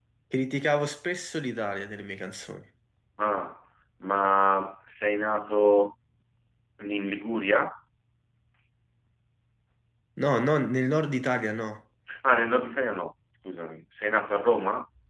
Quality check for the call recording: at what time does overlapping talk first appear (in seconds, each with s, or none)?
none